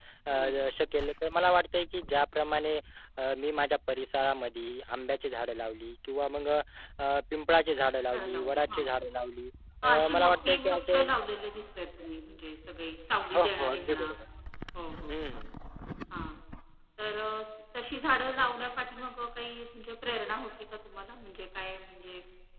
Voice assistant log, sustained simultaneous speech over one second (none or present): present